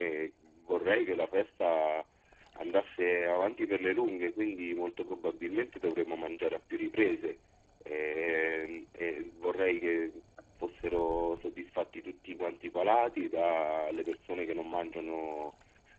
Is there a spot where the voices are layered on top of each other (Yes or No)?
No